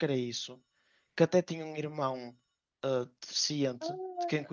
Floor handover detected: Yes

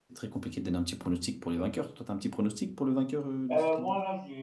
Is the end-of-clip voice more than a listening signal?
Yes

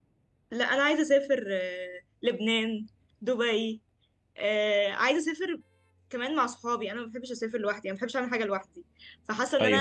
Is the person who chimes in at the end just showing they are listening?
Yes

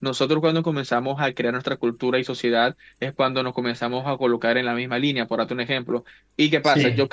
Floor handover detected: No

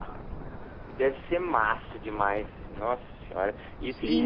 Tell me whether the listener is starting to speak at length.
Yes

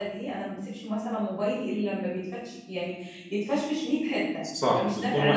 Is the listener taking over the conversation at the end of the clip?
Yes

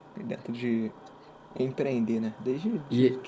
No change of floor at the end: No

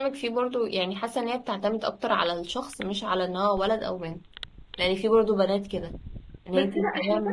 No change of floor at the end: No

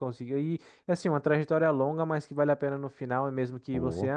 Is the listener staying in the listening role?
Yes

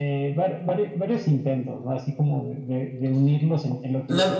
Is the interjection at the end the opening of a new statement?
Yes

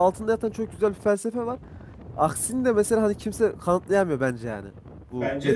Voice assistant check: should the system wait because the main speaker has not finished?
No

